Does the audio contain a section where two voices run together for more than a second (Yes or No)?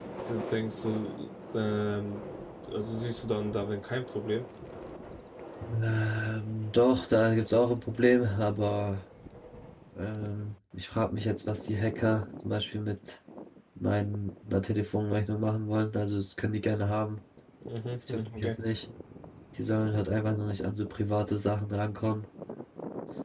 No